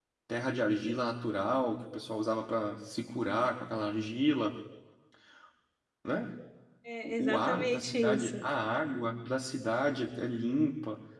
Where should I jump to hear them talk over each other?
7.0 s

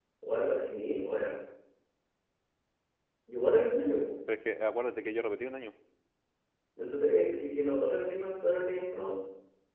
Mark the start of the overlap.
none

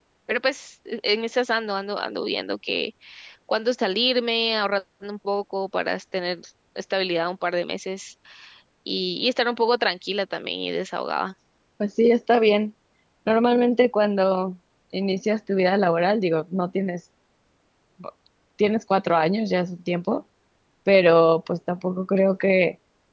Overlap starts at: none

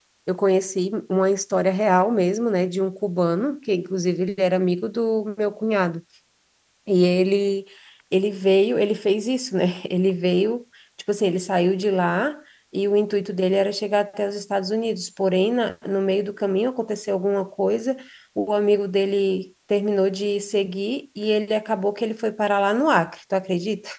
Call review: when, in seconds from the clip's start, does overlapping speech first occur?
none

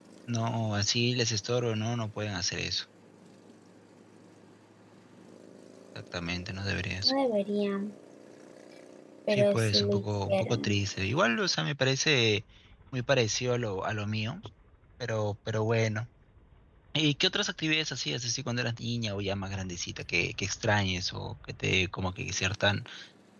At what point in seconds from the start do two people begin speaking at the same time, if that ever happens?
9.3 s

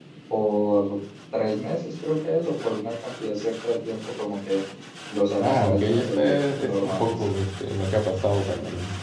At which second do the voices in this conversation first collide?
5.4 s

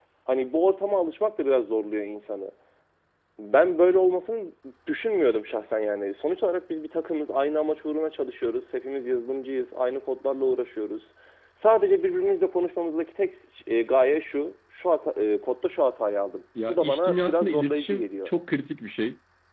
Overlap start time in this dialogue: 16.6 s

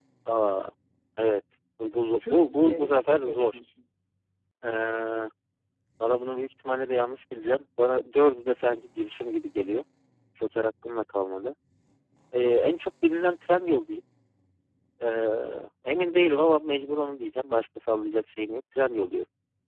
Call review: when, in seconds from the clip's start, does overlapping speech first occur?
2.2 s

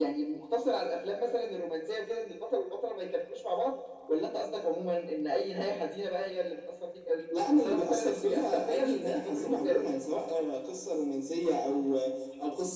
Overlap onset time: 7.3 s

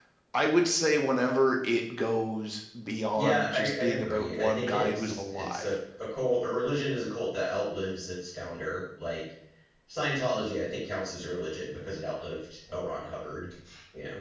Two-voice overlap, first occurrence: 3.2 s

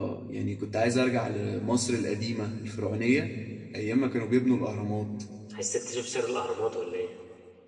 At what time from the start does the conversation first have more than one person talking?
none

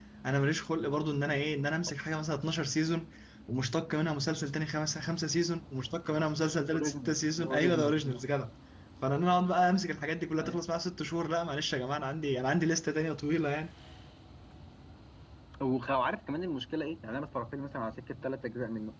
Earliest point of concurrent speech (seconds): 6.7 s

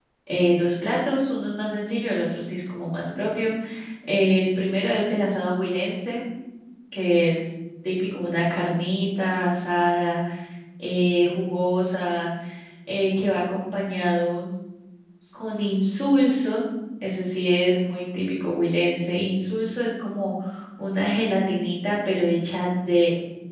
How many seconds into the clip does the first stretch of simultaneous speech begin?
none

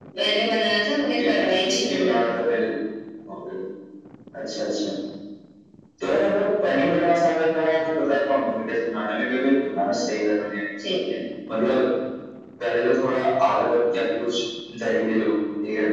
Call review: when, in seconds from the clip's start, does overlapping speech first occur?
1.2 s

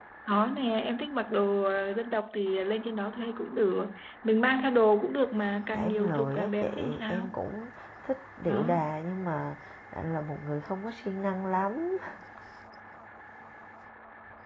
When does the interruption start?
5.7 s

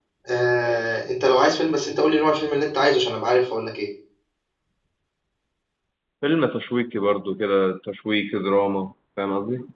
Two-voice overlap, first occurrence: none

